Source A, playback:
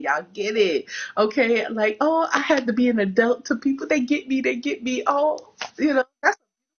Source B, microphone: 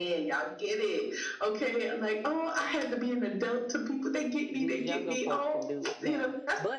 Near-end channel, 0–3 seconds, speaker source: echo only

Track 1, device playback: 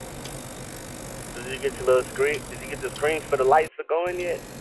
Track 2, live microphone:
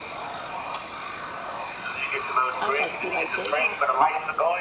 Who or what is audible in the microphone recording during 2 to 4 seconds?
both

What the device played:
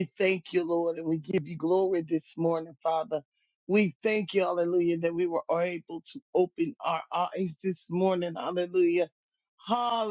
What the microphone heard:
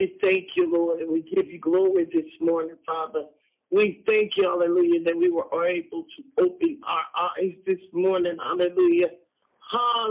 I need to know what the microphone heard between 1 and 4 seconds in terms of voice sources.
echo only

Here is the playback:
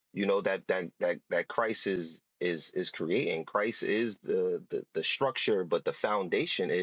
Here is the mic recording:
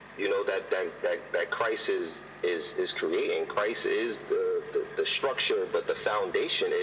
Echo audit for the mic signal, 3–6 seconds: echo only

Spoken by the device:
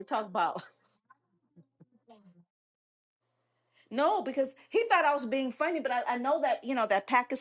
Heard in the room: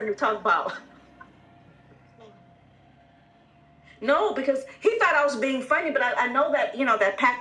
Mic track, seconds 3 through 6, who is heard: echo only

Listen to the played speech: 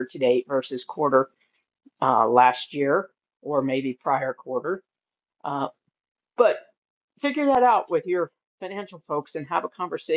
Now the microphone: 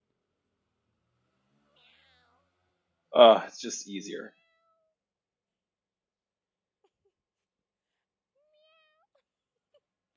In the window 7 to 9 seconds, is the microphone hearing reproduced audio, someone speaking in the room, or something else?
neither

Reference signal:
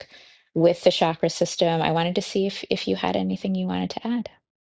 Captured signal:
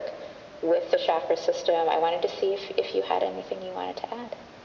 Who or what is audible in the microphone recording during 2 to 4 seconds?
echo only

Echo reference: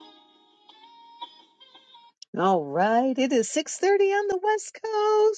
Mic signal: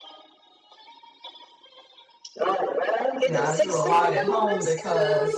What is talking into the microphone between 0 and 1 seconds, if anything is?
neither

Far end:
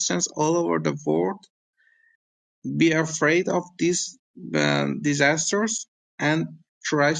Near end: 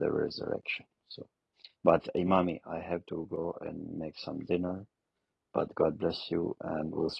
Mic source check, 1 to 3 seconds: user only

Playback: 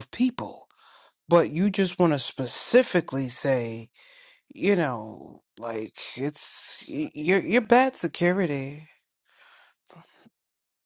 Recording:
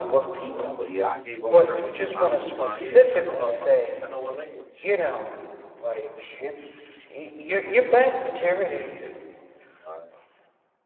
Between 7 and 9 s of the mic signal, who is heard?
both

